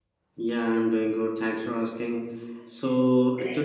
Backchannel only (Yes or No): Yes